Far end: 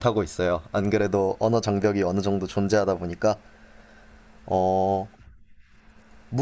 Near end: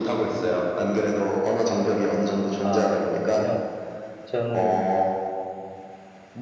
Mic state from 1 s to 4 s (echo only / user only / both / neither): both